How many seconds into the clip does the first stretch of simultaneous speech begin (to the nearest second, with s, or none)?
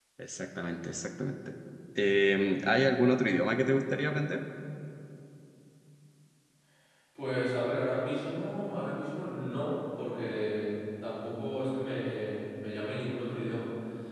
none